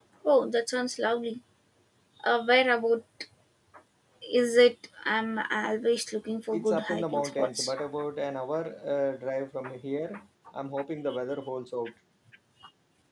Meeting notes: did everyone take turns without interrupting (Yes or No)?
No